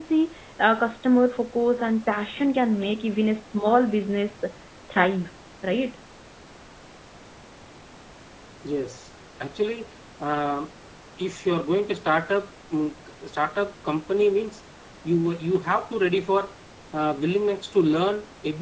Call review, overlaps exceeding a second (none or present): none